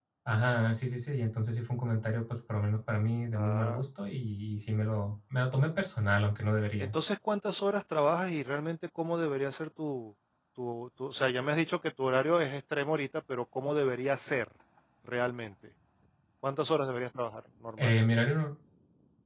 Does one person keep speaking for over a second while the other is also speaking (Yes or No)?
No